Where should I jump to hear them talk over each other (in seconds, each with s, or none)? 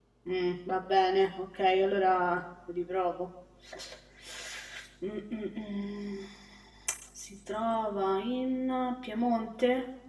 none